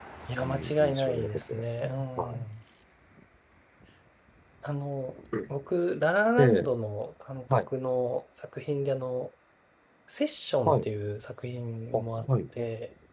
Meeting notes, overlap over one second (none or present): present